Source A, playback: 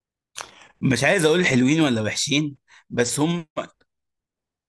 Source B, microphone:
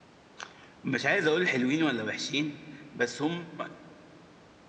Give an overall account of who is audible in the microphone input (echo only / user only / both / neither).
echo only